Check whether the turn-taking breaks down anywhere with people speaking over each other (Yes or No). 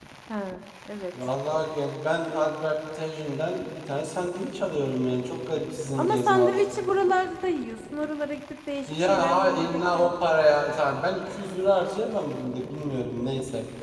Yes